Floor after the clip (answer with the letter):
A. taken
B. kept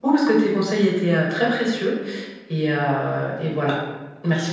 A